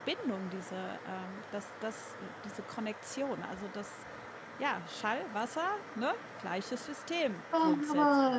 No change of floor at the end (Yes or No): No